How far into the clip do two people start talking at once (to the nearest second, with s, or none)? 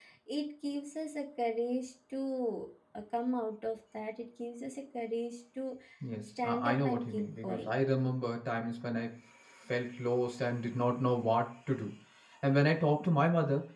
6 s